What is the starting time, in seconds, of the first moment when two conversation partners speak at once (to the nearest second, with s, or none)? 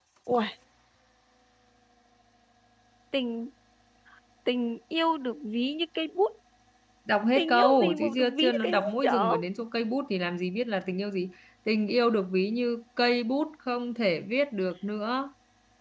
7 s